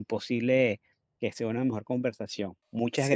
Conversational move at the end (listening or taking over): taking over